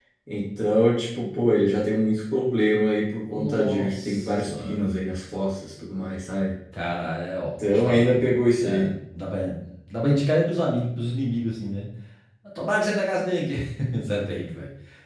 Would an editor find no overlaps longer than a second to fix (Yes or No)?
No